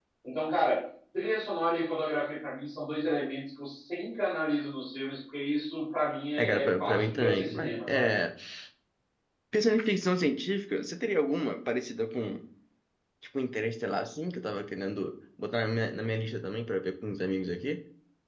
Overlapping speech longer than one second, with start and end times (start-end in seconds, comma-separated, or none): 6.4-8.1